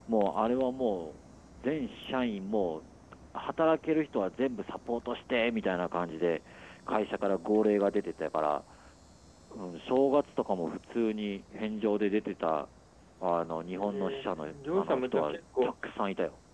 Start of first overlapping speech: 13.8 s

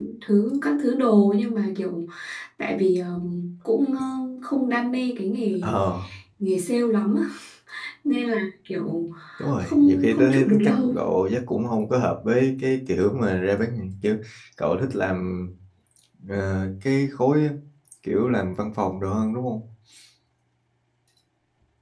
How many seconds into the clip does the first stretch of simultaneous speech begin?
9.6 s

